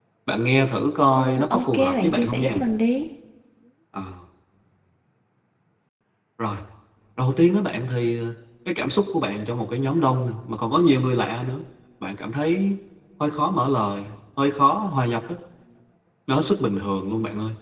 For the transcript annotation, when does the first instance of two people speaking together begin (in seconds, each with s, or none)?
1.1 s